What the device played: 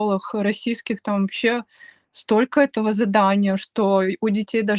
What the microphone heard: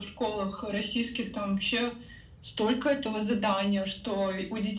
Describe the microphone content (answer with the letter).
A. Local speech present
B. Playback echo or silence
B